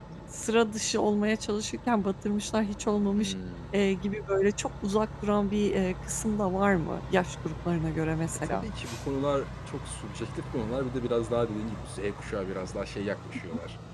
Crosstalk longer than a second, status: none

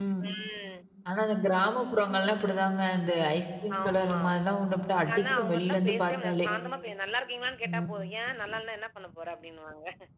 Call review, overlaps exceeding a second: present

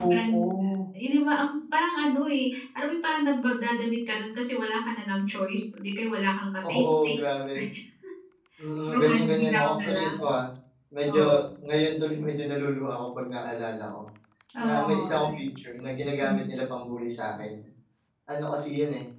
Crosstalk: present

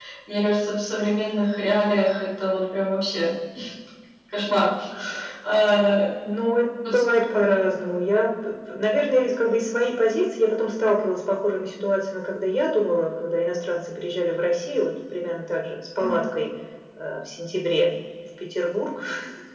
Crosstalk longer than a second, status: none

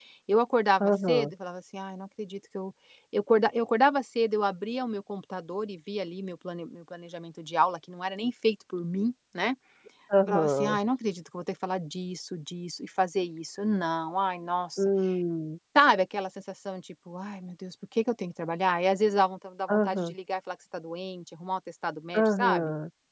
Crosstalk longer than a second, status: none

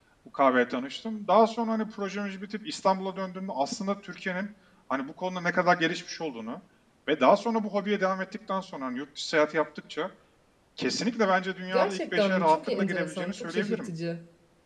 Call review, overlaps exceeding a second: present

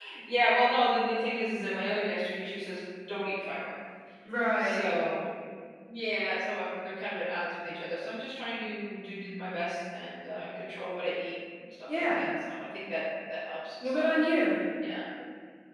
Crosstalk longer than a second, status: none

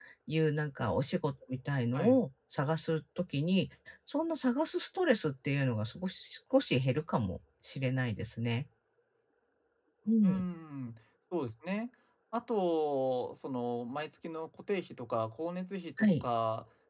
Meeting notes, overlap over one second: none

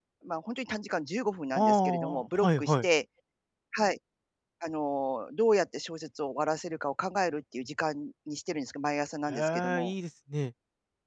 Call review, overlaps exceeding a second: present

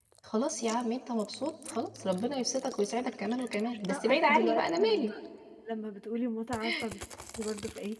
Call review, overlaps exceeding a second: present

